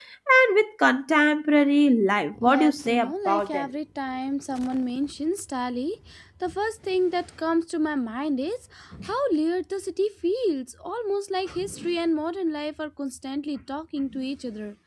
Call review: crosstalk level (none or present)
present